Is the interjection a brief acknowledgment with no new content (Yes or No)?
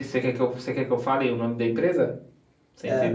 No